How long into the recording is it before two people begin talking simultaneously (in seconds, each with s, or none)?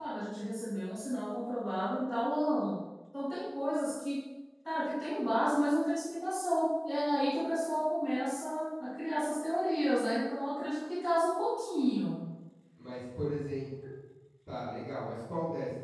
none